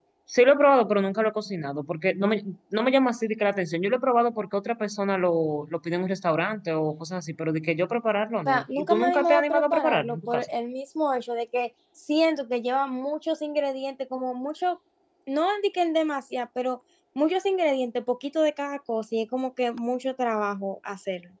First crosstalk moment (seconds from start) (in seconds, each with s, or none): 8.4 s